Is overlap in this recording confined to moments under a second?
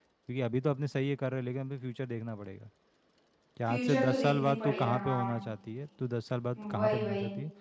No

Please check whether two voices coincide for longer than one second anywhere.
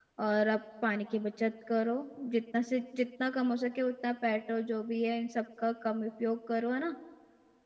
No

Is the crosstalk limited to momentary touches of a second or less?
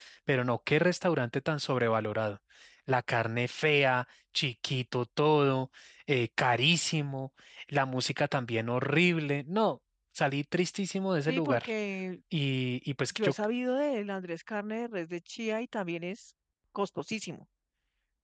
Yes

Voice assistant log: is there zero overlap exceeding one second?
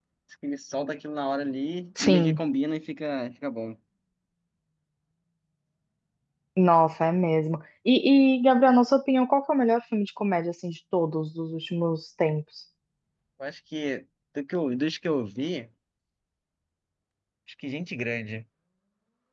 Yes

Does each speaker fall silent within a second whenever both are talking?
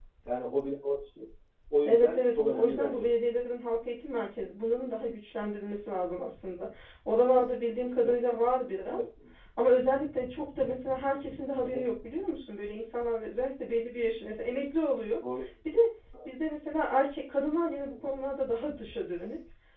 No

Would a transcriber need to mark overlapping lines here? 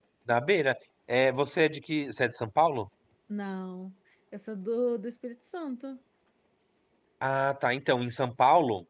No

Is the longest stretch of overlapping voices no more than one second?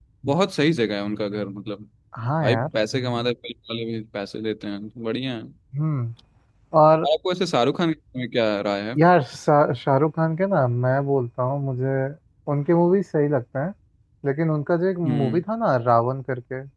Yes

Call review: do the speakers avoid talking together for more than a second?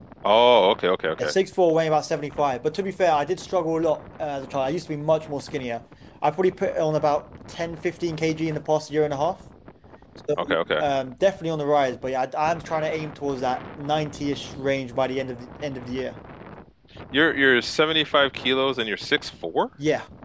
Yes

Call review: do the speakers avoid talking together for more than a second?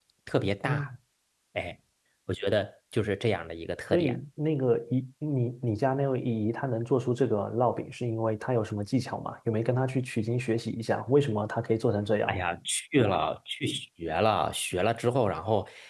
Yes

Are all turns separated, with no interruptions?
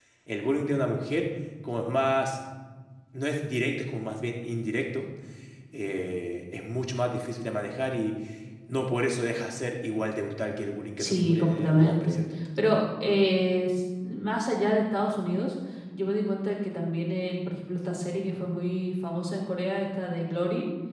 No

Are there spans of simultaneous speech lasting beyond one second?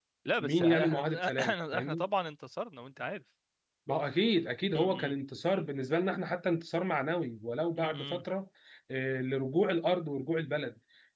Yes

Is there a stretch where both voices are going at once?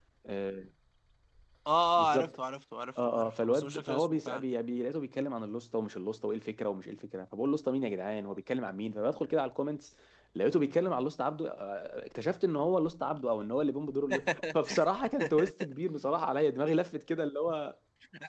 Yes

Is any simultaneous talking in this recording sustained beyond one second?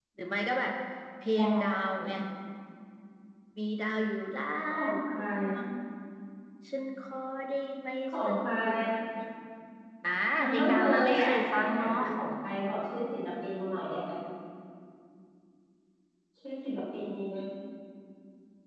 Yes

